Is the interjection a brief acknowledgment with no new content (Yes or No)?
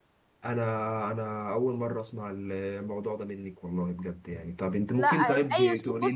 No